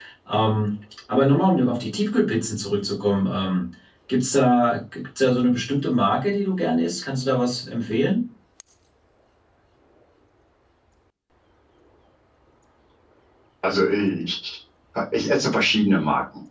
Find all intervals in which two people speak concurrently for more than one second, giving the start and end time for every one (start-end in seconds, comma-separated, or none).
none